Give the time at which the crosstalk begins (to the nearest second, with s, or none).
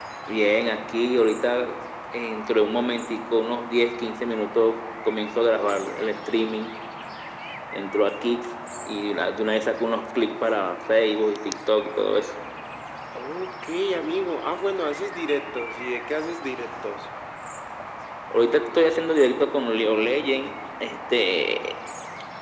none